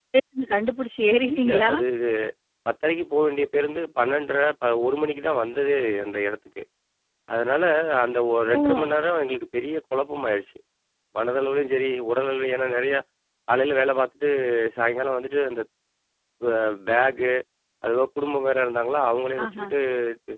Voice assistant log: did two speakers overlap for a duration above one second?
No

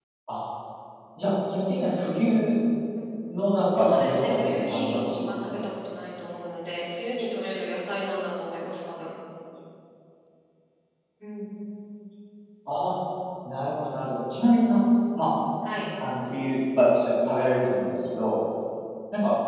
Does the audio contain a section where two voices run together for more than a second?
Yes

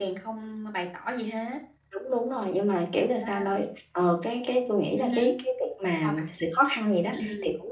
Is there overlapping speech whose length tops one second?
No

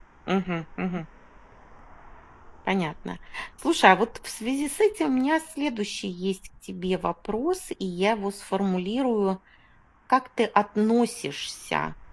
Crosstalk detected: No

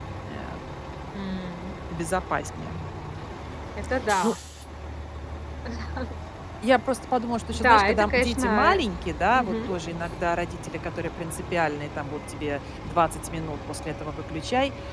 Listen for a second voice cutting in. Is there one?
Yes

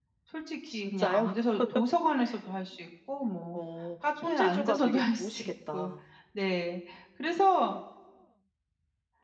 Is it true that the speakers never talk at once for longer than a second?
No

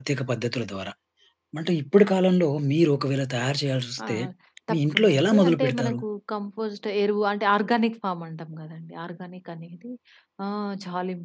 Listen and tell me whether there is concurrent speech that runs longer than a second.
Yes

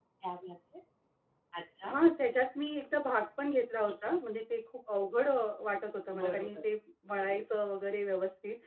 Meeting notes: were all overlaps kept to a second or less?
Yes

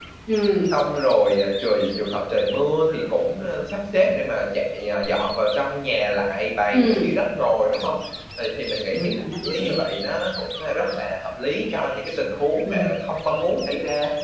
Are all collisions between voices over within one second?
Yes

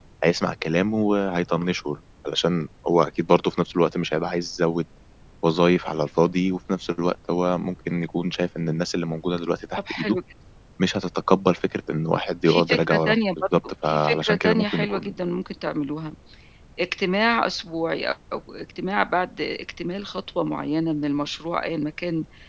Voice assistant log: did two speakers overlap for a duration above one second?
Yes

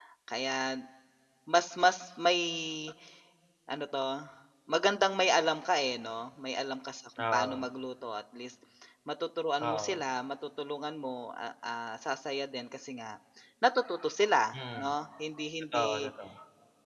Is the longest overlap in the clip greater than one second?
No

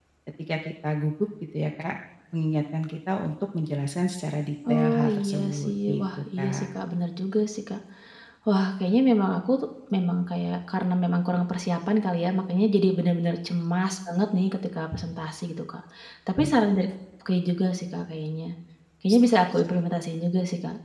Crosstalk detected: Yes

